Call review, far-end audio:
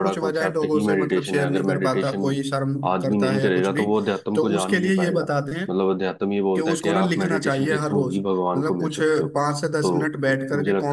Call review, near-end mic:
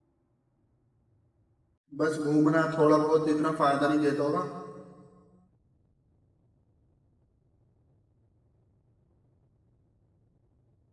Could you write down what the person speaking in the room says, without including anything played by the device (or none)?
बस घूमना थोड़ा बहुत इतना फायदा नहीं देता होगा